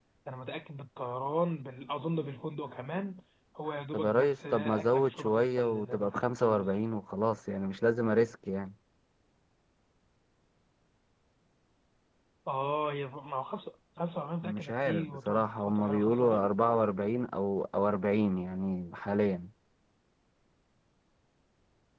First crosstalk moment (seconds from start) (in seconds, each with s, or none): 3.9 s